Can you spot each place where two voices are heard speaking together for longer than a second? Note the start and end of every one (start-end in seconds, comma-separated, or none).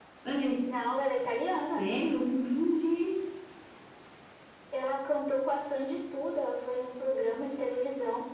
none